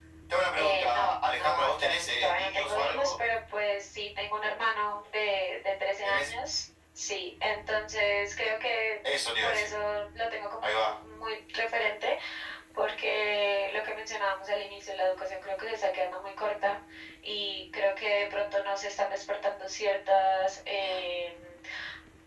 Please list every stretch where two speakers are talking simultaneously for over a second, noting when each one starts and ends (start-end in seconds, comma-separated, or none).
0.6-3.1